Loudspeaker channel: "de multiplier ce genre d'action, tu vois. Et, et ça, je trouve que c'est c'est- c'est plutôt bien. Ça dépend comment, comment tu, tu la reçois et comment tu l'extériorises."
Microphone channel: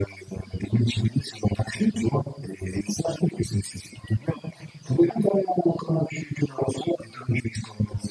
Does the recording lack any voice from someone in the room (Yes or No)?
Yes